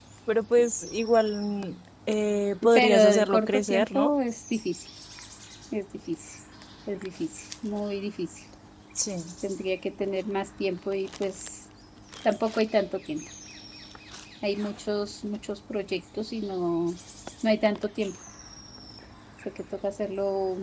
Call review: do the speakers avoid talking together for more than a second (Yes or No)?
No